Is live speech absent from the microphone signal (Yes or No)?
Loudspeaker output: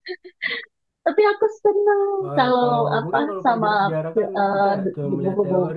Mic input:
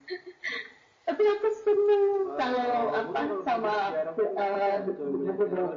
Yes